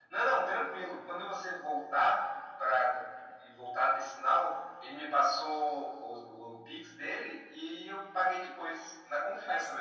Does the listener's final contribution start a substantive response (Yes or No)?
Yes